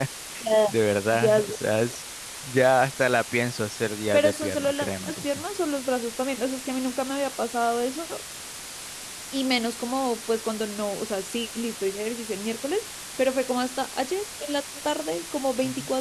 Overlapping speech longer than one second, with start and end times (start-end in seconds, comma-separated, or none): 4.1-5.4